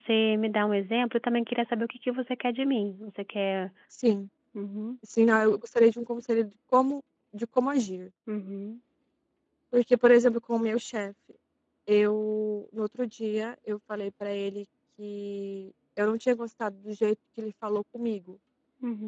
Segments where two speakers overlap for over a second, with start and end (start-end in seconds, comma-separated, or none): none